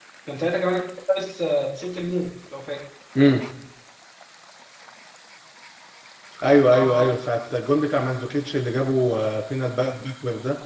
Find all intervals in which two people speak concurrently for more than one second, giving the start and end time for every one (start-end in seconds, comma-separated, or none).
none